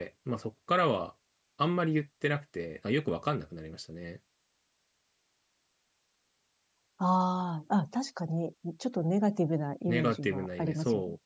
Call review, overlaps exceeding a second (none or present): present